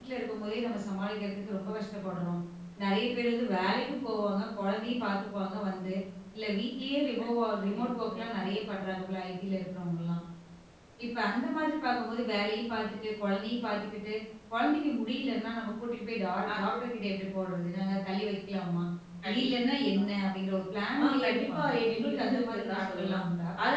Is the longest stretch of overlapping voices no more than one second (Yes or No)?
No